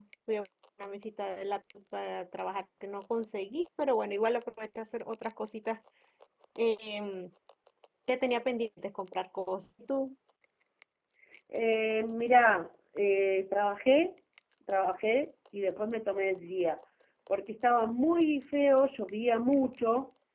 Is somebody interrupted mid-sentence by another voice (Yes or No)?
No